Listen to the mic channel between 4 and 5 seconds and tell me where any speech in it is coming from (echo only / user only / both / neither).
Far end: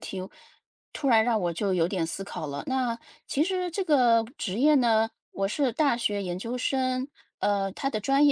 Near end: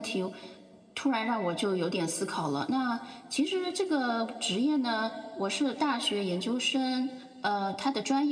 echo only